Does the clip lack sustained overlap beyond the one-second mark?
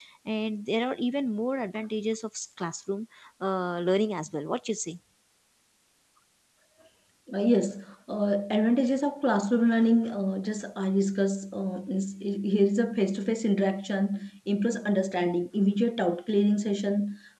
Yes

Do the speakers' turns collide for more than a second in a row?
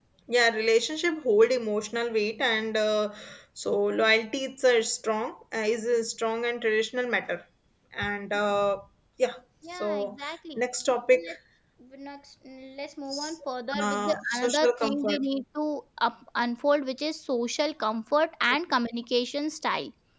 Yes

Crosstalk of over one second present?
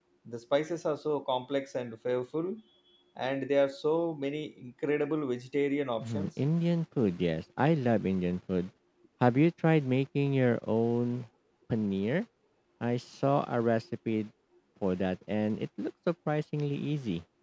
No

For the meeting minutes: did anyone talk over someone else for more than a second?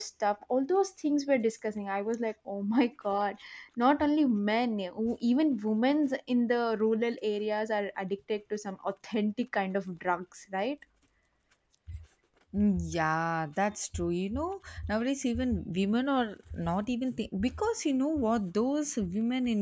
No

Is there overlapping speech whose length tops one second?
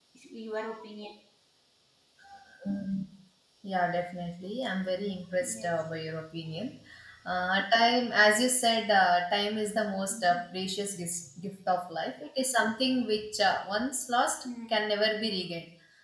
No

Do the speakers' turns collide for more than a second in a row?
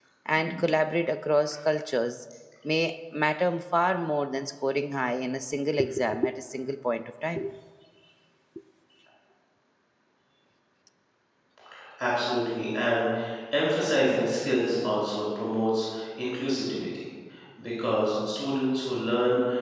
No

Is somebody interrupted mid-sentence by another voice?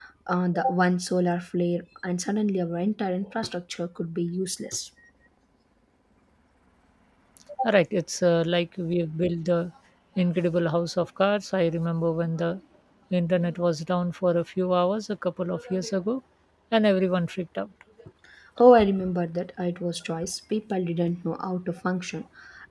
No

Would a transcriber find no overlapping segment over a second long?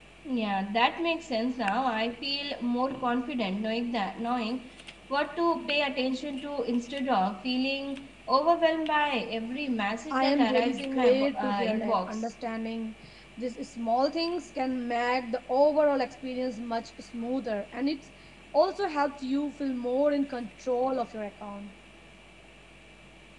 No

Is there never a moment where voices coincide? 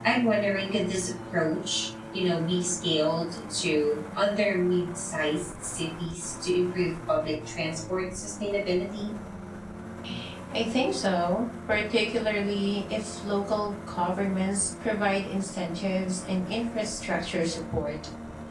Yes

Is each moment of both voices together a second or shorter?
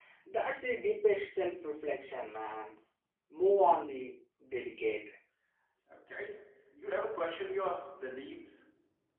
Yes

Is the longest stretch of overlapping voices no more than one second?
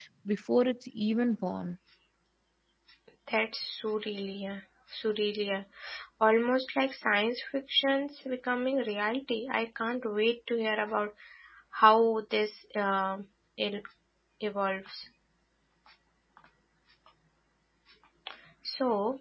Yes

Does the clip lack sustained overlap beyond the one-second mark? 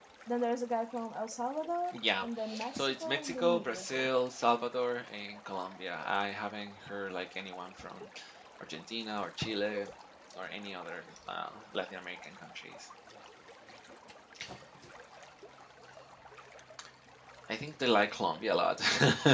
No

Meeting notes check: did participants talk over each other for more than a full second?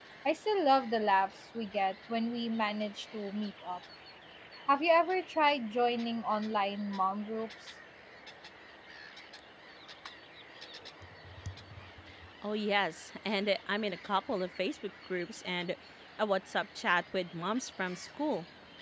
No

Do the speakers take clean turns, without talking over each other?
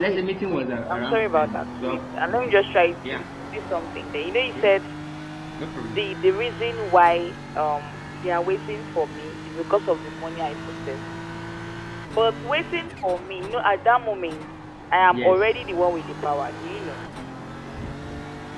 No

